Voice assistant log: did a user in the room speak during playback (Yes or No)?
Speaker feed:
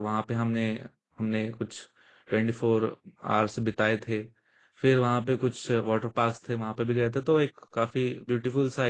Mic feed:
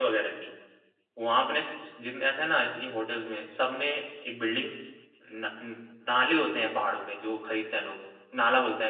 Yes